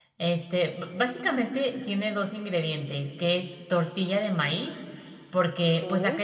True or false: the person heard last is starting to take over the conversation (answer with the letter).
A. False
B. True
A